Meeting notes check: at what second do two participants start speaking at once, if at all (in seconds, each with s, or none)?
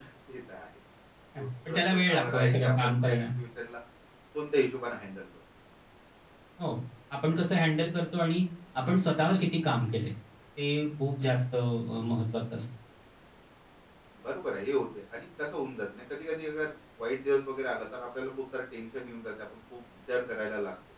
1.4 s